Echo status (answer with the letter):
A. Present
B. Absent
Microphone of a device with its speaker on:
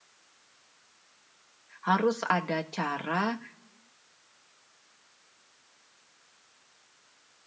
B